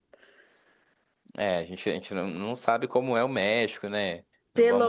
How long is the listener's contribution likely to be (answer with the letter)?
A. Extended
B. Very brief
A